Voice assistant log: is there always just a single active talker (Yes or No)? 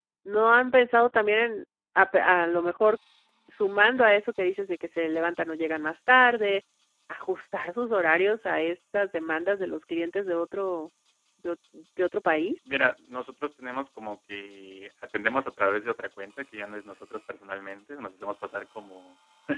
Yes